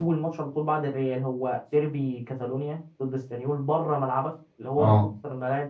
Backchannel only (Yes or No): Yes